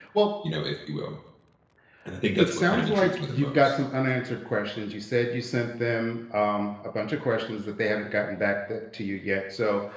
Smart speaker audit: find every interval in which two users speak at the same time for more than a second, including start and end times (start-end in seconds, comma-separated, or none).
2.4-3.7